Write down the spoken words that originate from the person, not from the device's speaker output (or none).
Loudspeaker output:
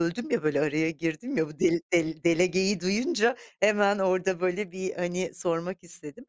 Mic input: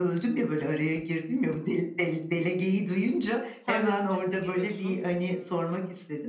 Sen de strese giriyorsun.